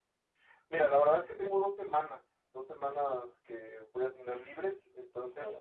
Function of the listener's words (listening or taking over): listening